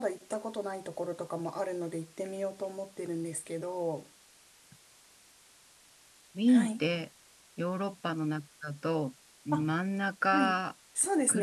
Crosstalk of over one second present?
No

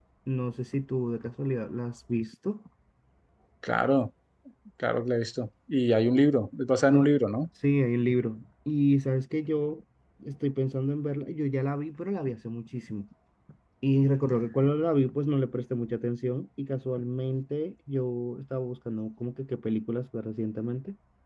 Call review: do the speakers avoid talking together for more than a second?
Yes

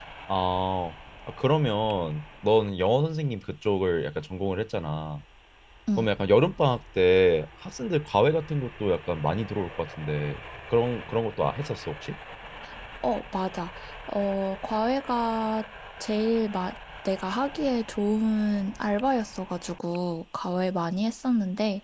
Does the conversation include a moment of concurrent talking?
No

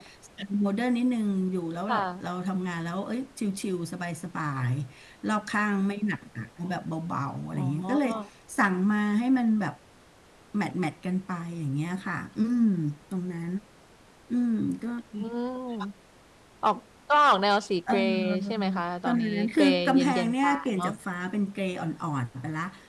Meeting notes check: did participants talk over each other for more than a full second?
Yes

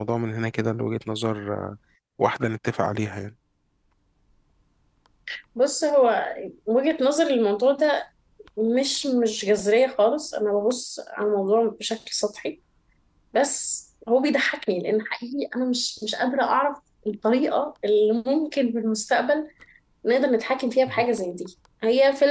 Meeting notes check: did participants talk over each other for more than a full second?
No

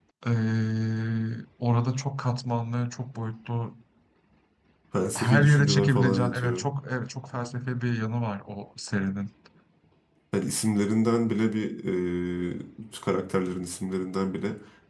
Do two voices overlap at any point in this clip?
Yes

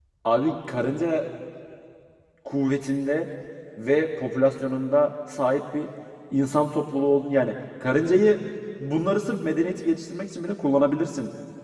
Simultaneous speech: No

